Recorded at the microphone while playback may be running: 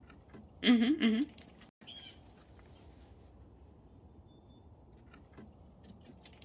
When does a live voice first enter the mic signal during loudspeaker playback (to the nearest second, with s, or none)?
1 s